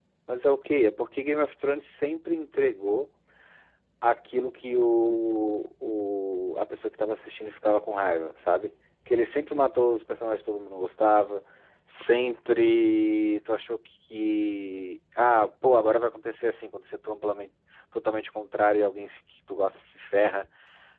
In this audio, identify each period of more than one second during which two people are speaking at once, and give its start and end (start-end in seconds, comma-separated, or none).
none